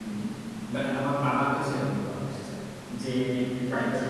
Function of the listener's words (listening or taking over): listening